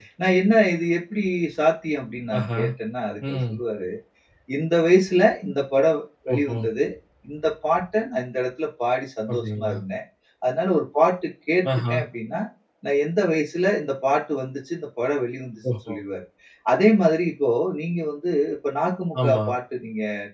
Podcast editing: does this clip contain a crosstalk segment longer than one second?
No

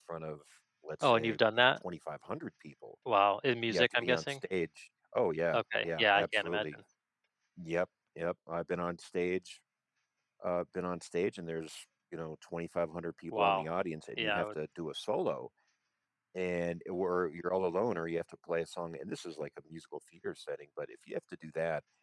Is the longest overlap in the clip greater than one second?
Yes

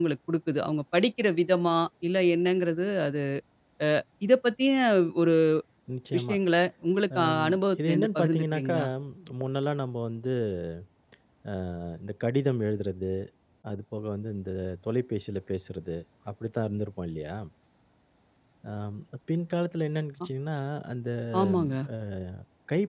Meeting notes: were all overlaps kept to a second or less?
No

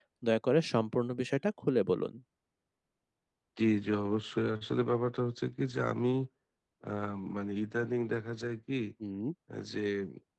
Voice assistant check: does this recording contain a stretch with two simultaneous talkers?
No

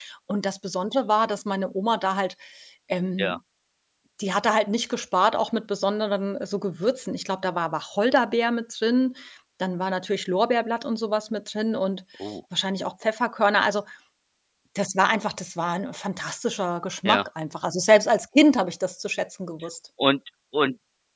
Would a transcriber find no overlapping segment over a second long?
Yes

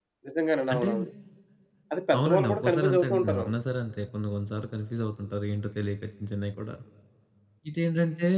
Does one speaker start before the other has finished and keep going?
Yes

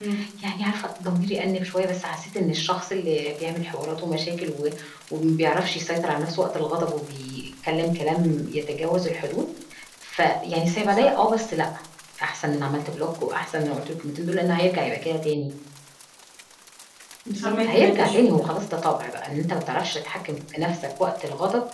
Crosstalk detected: Yes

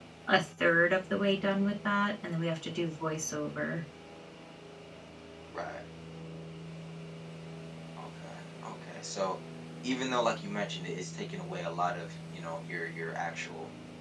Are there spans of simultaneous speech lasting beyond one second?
No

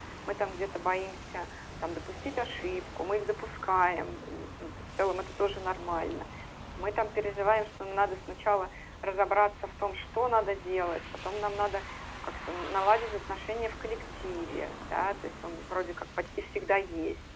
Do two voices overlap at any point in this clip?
No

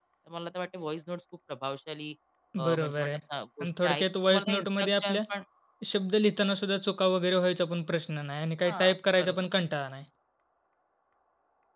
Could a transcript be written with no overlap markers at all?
No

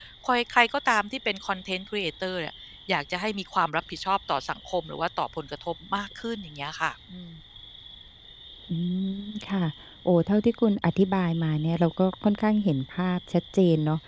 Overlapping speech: No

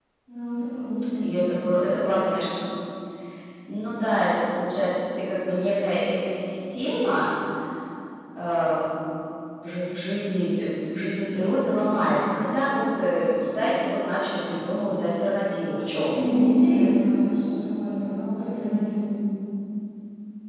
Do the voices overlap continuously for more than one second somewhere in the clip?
No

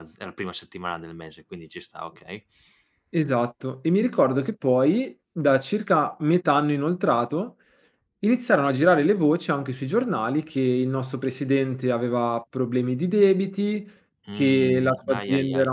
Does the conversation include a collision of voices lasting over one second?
Yes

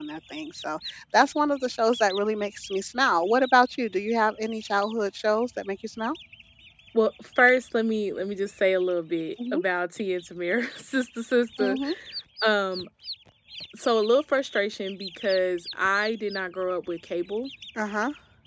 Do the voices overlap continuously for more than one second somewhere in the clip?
No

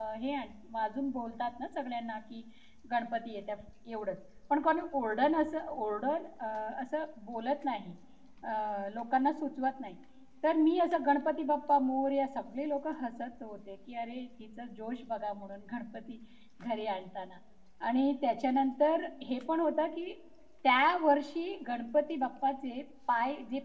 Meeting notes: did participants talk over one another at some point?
No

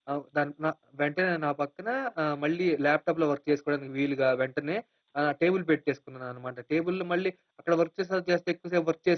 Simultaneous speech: No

